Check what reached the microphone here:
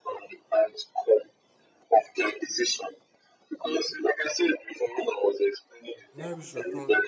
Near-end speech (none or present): present